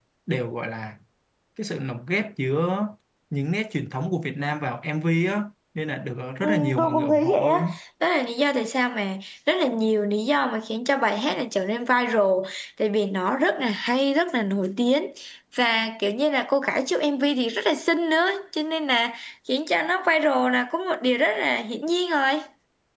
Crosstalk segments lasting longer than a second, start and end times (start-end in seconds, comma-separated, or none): 6.4-7.8